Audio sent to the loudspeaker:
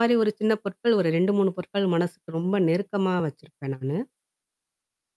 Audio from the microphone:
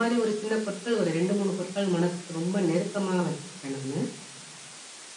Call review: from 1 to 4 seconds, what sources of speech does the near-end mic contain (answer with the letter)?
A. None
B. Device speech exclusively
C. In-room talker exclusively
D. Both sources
B